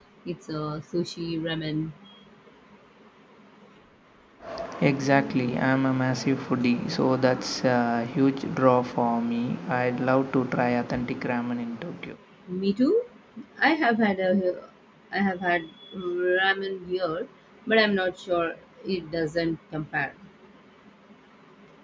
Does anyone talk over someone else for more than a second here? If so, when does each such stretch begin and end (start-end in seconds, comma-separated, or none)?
none